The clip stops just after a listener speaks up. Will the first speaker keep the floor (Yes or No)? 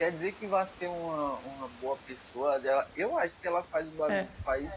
Yes